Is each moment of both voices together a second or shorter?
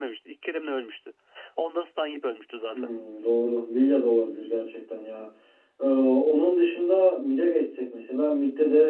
Yes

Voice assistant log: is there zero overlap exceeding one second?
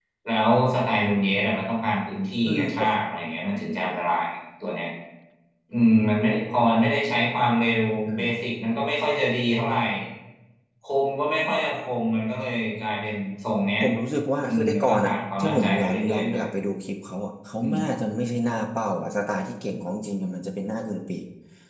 No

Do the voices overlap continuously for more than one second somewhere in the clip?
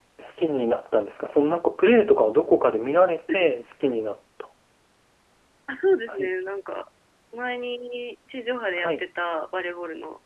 No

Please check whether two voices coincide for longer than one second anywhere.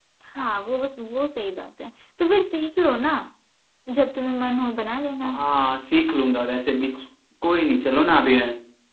No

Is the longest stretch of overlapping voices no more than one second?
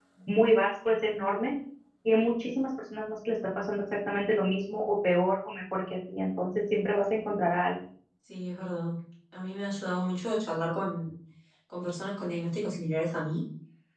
Yes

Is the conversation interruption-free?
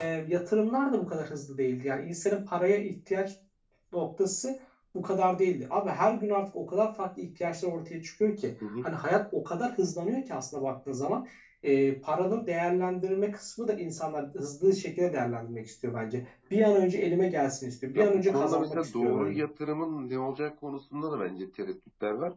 No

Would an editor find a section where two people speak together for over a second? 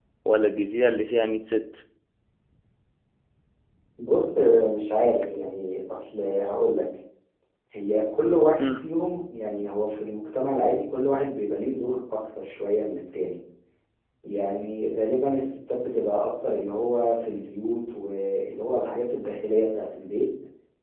No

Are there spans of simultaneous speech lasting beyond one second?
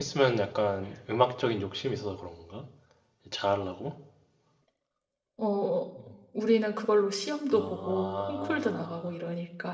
Yes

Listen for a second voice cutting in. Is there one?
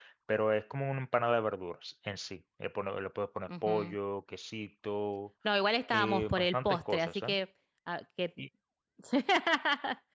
Yes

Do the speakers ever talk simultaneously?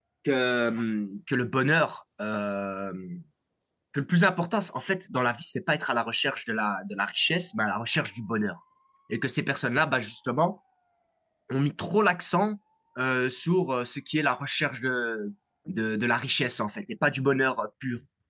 No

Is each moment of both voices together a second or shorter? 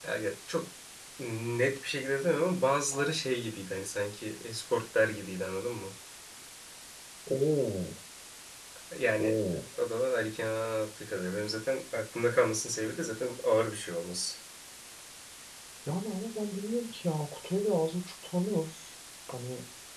Yes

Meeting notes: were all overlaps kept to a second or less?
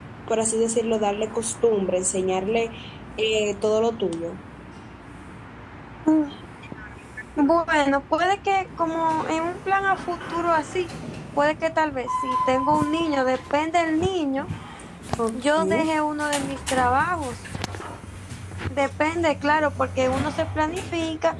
Yes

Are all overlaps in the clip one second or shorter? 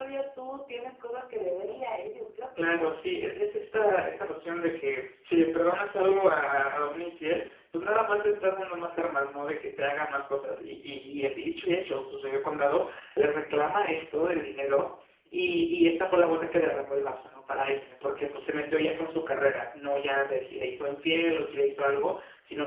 Yes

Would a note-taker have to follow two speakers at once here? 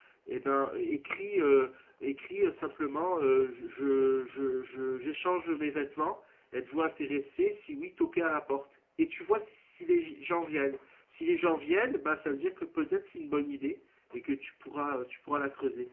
No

